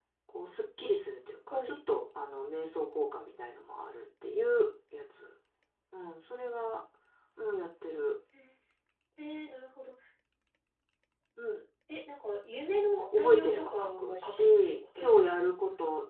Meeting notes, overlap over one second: present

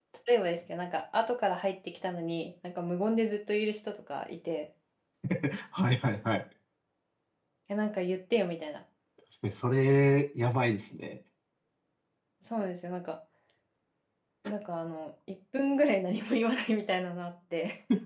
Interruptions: none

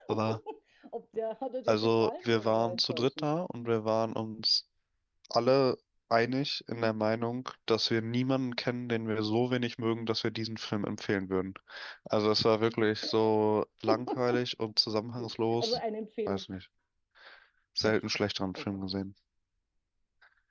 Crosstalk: present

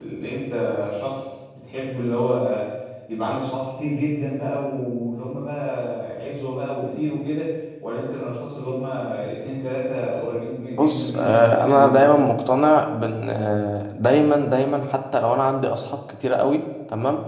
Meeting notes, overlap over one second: present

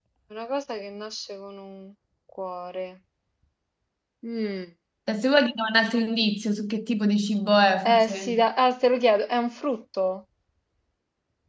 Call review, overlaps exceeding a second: none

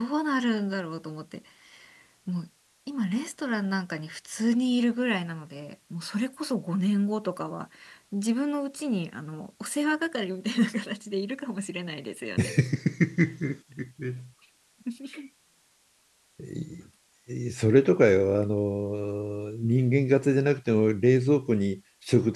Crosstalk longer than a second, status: none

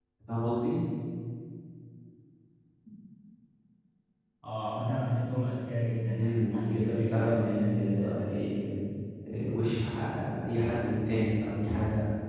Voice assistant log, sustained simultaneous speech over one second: present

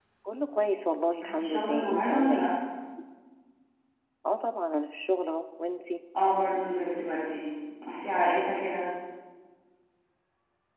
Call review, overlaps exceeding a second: present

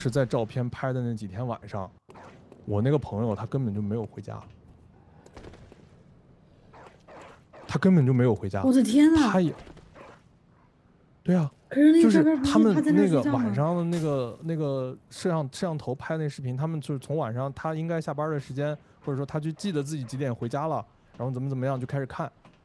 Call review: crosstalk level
present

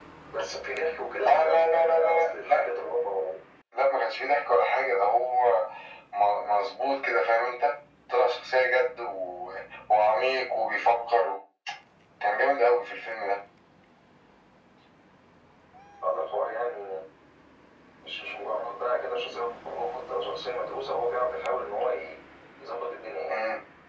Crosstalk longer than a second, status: present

